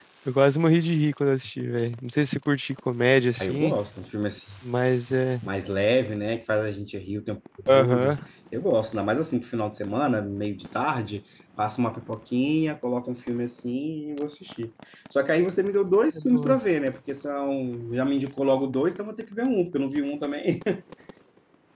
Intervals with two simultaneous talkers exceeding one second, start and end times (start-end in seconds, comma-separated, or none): none